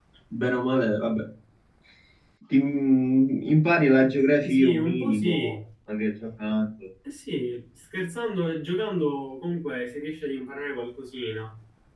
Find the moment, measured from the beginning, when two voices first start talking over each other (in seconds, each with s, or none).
4.3 s